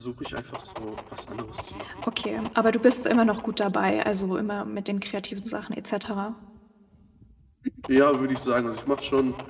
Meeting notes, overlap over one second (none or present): none